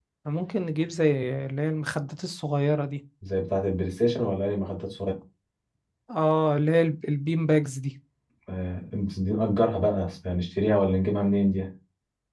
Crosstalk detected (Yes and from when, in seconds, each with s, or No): No